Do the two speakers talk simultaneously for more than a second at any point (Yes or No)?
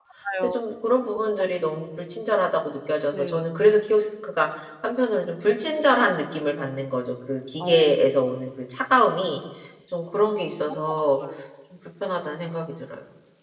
No